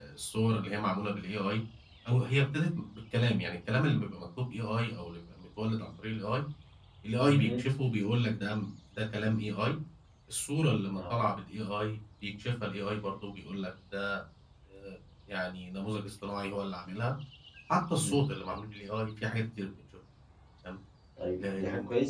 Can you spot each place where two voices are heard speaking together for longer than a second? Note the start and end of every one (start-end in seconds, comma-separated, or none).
none